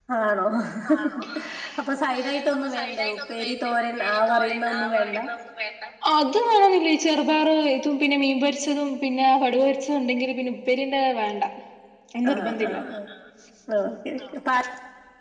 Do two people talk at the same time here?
Yes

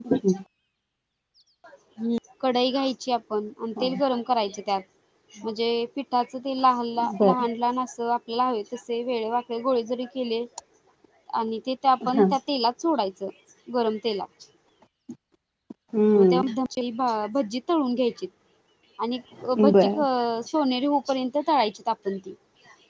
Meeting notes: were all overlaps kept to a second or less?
Yes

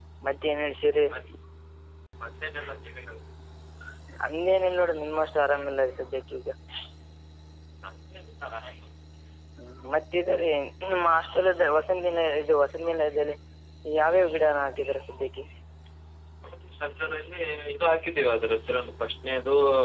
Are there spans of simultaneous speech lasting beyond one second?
No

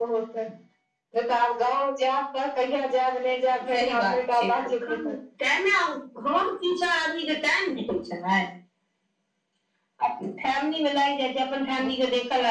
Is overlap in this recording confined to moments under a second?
No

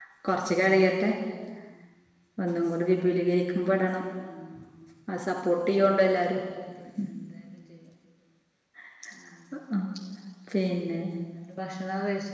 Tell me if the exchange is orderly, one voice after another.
Yes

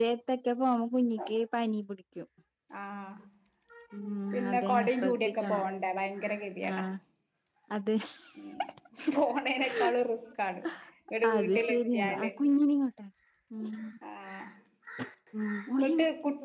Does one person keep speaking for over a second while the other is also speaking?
Yes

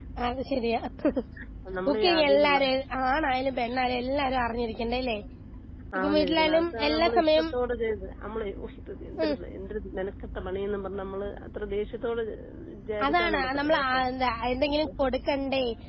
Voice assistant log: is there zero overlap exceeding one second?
No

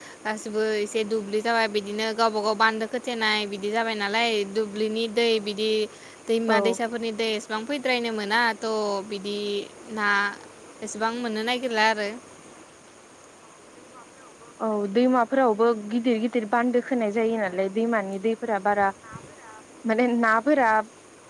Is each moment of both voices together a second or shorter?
Yes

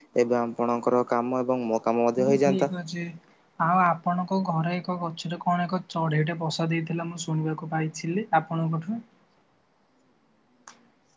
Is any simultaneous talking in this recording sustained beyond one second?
No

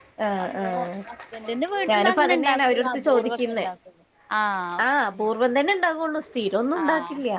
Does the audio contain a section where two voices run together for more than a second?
Yes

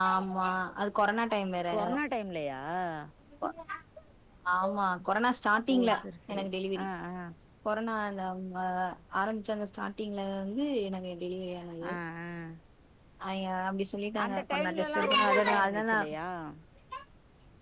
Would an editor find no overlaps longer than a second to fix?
No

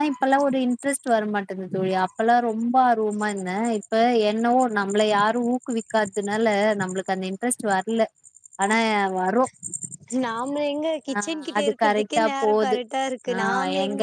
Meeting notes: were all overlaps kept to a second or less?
No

